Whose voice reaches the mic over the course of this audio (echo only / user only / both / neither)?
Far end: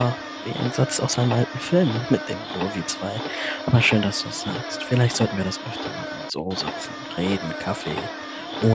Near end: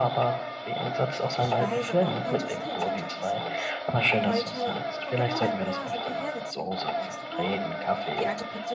both